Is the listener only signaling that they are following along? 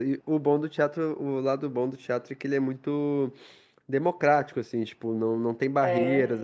Yes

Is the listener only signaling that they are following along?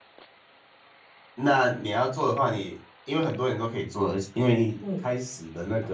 Yes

